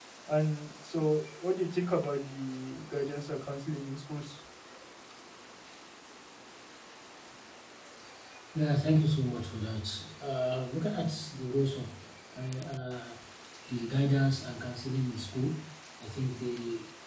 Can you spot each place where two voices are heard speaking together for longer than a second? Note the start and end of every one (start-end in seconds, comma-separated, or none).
none